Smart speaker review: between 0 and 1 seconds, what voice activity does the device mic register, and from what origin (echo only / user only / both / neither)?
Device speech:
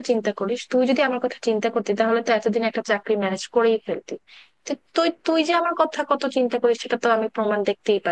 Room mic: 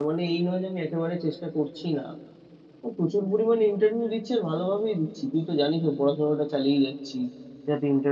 user only